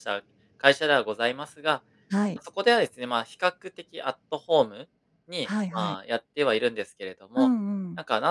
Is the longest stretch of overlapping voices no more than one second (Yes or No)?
Yes